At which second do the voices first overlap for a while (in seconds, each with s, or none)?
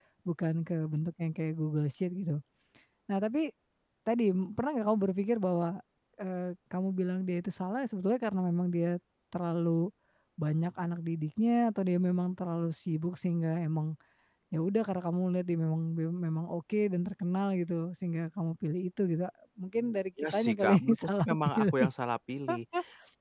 20.3 s